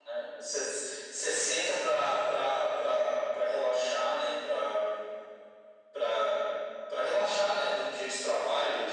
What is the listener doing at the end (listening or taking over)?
listening